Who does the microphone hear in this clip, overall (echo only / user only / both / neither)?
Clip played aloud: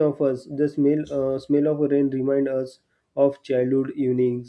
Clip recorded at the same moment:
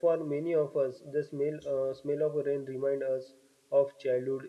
echo only